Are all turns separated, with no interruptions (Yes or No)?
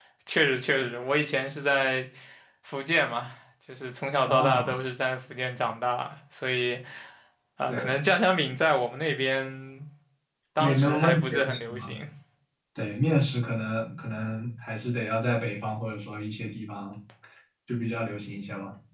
No